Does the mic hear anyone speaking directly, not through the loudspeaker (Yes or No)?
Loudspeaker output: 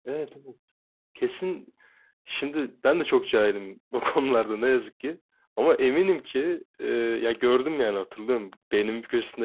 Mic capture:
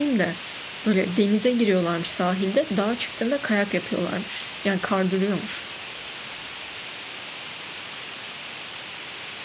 Yes